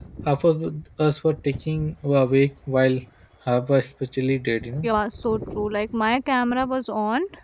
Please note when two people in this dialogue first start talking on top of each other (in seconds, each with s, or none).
none